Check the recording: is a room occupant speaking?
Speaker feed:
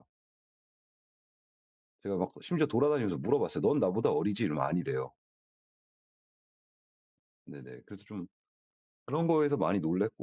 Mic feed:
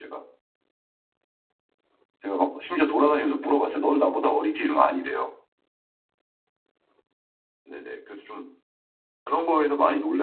No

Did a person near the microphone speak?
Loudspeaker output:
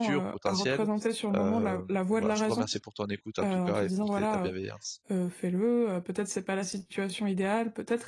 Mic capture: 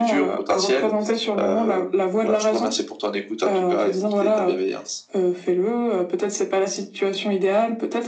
No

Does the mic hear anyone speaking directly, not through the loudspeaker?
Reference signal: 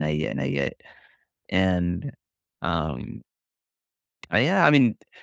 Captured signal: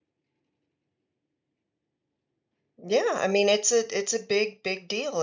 Yes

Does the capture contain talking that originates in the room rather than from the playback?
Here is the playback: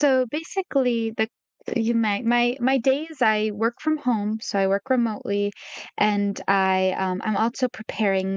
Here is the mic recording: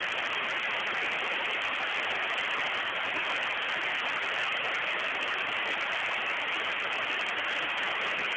No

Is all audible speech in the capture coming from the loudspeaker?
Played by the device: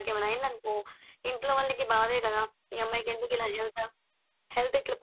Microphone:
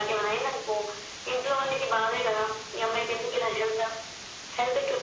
Yes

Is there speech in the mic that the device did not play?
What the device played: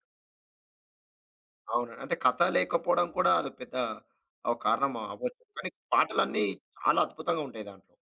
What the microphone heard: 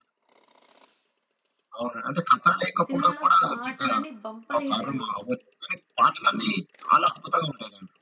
Yes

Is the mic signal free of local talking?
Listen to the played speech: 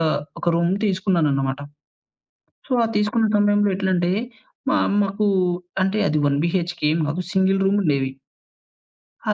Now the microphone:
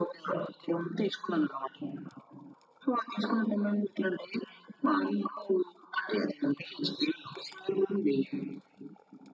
Yes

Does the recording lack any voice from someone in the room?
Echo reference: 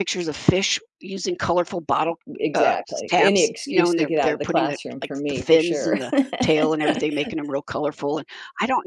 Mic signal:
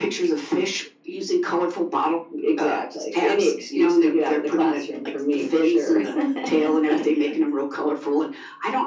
Yes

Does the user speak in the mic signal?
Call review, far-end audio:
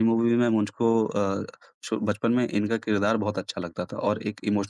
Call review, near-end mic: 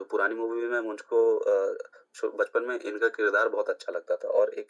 No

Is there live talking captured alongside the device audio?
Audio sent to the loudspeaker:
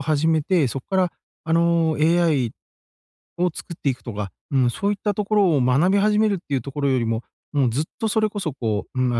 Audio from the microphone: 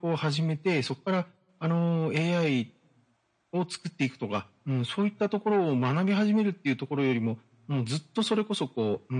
No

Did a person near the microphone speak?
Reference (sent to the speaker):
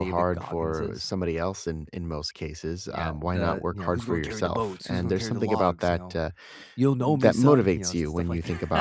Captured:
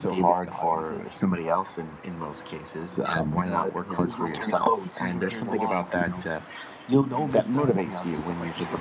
No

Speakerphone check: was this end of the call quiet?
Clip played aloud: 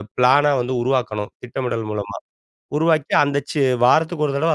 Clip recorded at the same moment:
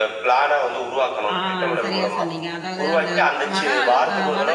No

